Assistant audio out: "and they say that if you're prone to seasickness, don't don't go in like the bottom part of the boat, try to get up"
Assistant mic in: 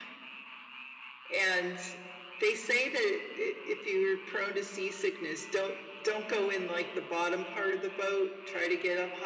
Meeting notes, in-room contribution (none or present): none